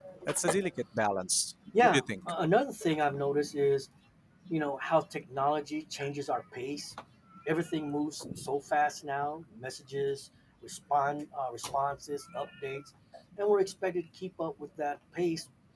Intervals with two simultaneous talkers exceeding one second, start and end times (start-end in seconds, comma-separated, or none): none